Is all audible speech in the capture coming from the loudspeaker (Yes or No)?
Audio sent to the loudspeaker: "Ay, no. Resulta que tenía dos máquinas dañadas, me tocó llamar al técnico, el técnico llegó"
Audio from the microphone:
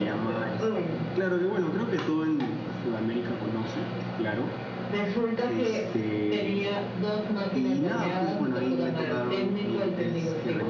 No